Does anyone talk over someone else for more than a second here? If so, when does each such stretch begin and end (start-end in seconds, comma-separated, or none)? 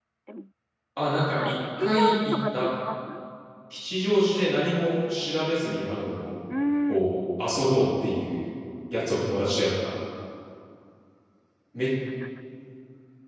1.4-2.7